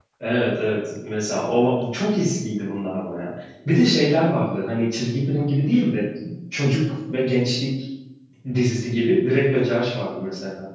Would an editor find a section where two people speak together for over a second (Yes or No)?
No